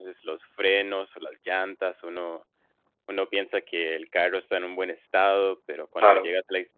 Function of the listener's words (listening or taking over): listening